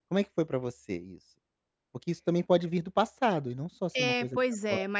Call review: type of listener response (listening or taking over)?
taking over